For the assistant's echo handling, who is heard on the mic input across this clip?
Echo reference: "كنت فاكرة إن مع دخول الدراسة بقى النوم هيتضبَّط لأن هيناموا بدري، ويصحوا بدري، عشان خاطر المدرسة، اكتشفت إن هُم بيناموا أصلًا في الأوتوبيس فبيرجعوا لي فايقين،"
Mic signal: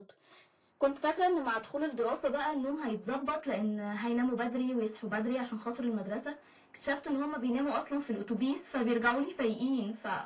echo only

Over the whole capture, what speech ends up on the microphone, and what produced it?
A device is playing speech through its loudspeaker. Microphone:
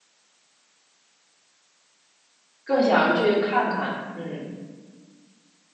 user only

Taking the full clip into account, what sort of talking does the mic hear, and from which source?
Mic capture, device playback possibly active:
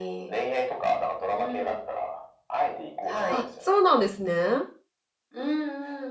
both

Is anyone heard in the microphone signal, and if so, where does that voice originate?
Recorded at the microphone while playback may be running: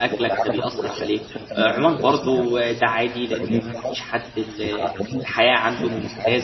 both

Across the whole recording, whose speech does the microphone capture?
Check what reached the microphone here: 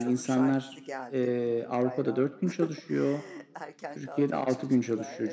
both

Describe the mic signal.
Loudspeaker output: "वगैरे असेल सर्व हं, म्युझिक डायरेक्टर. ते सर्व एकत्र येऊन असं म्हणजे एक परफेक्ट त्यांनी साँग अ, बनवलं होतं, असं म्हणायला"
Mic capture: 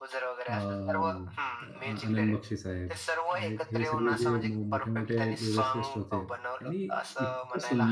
both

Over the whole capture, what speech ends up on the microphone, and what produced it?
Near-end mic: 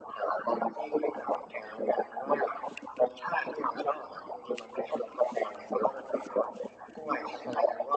echo only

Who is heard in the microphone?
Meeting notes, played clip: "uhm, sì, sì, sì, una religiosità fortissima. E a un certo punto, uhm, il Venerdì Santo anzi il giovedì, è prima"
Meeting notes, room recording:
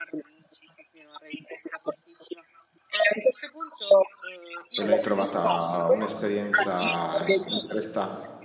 both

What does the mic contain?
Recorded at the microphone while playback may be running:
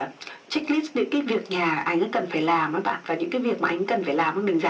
echo only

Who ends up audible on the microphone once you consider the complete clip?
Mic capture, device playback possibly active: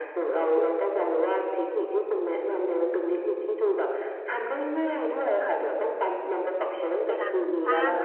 both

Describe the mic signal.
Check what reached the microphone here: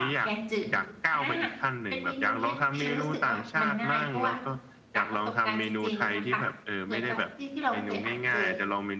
both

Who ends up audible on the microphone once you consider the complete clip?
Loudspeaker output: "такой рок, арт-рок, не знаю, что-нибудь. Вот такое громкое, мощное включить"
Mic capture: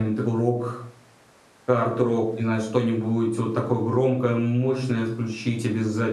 echo only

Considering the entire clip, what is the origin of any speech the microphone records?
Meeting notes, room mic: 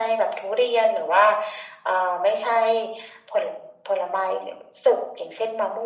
echo only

